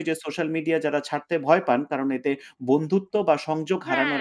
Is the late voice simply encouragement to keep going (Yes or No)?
No